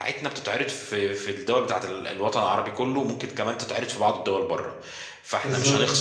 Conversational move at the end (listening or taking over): listening